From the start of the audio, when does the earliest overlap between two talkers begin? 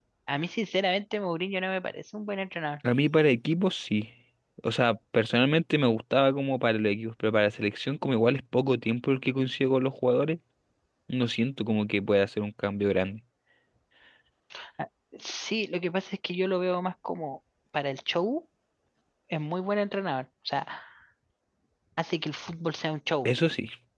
none

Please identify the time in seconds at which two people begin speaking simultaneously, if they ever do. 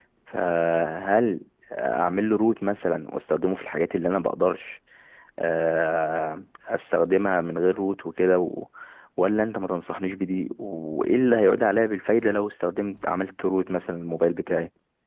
none

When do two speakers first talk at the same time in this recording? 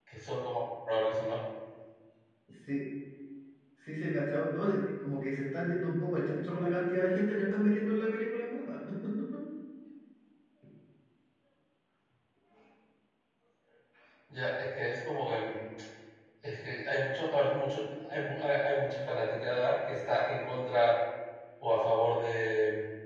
none

